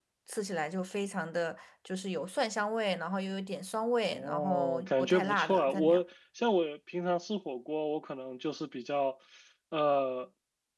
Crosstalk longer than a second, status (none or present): present